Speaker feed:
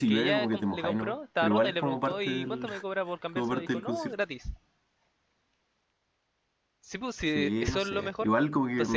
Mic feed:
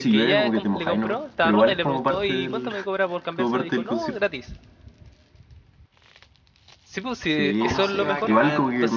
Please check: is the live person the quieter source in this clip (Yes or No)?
Yes